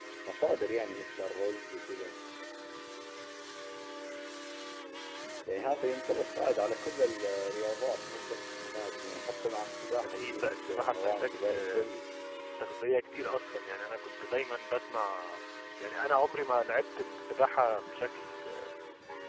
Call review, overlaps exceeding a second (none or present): present